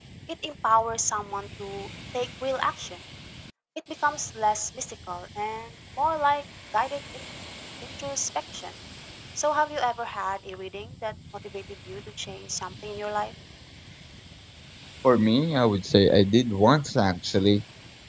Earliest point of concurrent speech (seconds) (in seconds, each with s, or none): none